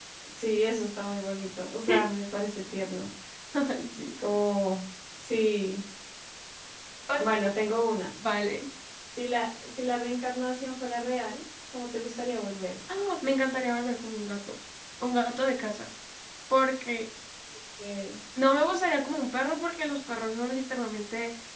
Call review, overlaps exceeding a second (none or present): none